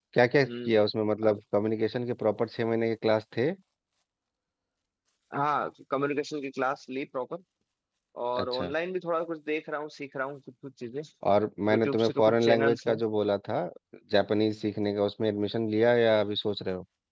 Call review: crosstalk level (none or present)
present